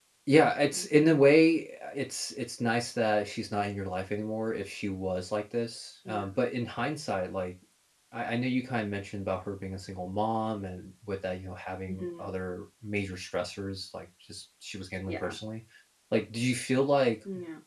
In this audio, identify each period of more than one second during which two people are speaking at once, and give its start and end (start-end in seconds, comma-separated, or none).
none